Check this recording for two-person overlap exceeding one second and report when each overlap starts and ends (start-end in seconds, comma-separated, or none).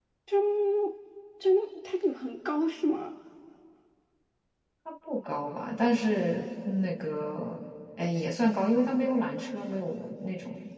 none